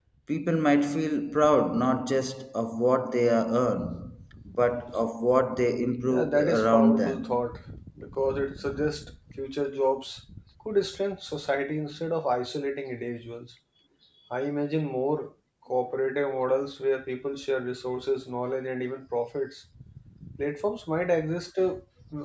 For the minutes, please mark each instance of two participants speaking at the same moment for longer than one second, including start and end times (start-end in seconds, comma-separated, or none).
6.1-7.4